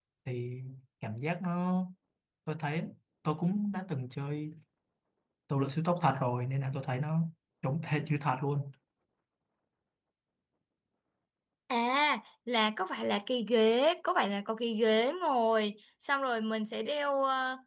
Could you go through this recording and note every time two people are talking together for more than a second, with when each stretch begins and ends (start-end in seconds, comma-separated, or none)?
none